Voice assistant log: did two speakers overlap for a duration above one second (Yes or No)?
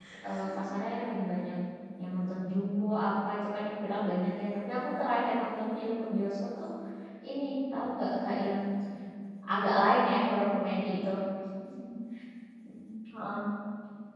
No